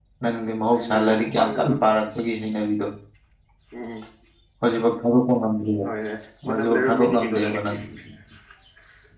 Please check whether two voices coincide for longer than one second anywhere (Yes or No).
Yes